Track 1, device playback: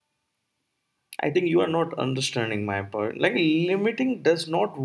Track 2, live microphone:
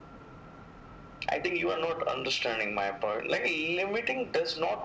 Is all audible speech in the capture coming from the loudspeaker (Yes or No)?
Yes